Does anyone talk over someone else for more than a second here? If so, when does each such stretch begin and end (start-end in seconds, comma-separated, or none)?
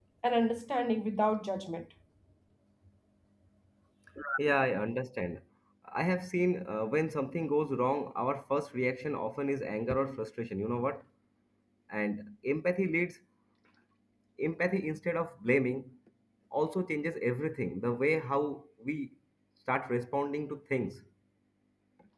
none